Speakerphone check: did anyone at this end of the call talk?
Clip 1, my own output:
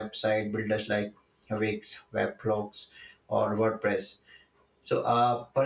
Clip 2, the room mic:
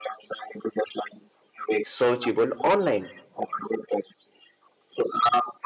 Yes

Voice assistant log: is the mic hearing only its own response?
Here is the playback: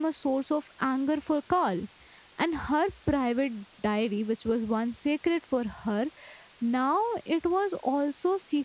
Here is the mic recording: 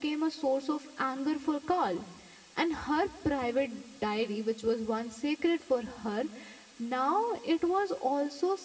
Yes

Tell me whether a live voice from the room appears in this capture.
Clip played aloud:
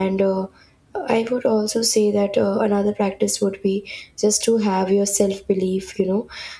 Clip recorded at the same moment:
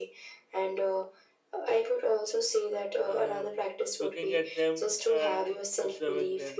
Yes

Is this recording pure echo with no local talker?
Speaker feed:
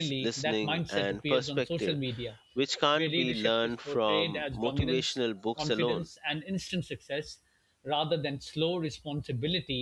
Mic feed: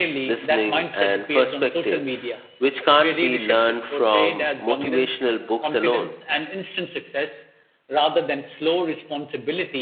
Yes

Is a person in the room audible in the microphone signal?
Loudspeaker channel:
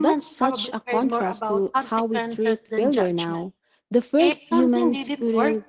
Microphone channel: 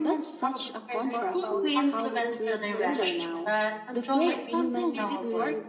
Yes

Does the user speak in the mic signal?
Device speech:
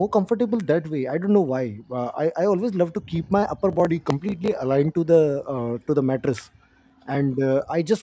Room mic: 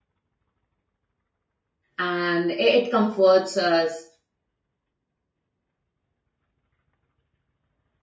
Yes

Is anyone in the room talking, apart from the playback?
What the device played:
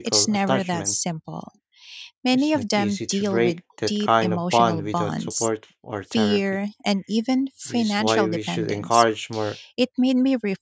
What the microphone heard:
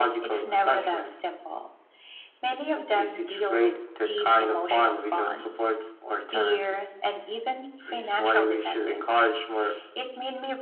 No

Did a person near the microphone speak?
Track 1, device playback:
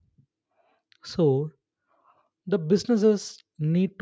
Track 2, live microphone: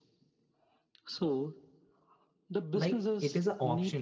Yes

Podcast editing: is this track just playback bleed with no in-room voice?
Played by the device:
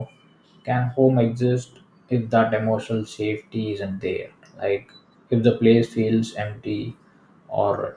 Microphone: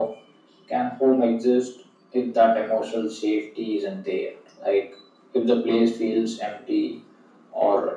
Yes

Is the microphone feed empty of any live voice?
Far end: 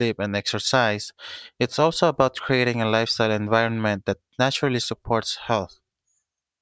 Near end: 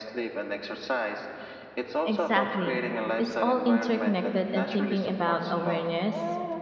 No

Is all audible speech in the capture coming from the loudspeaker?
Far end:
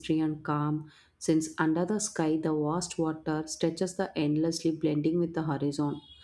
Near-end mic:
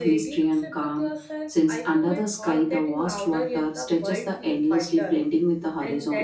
No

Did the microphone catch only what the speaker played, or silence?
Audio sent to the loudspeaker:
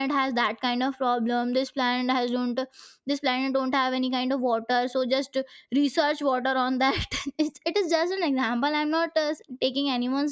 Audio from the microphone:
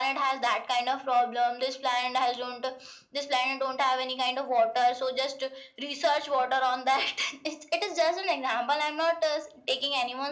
Yes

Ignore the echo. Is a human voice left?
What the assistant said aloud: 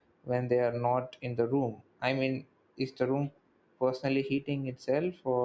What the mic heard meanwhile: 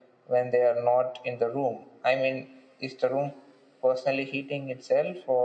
No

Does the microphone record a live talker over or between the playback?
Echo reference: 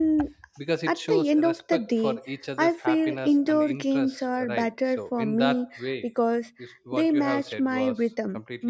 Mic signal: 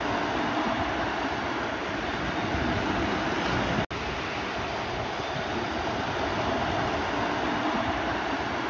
No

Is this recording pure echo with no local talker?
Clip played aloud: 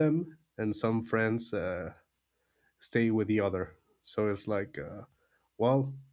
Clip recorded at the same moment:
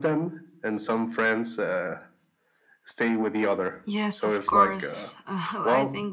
No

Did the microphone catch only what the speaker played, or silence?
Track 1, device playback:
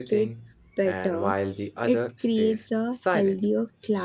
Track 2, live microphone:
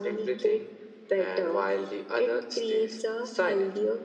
Yes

